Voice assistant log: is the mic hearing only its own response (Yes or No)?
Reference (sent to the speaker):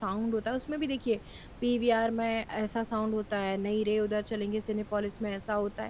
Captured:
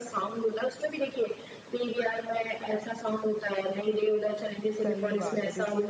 No